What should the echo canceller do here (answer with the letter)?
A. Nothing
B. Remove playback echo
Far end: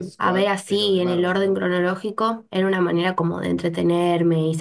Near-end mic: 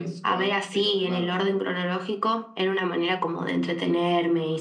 B